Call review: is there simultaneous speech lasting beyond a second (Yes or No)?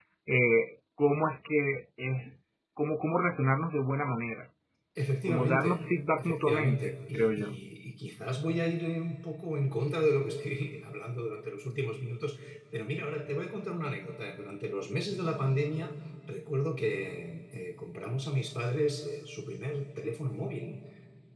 Yes